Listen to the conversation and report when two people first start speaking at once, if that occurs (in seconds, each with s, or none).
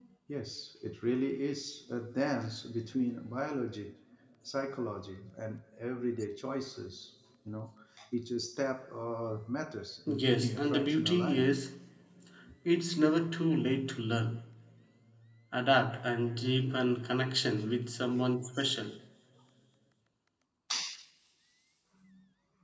10.1 s